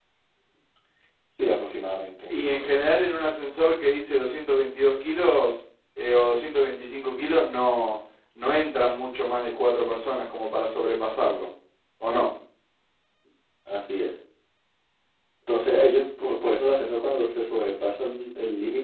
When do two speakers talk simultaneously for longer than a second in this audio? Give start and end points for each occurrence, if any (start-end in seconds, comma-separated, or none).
none